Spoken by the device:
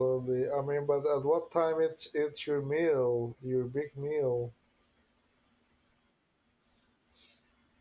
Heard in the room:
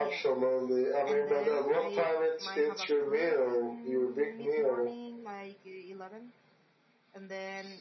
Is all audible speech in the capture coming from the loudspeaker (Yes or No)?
No